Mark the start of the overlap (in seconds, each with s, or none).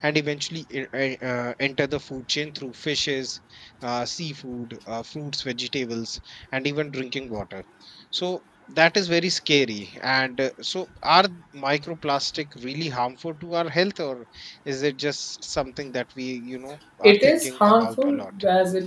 17.0 s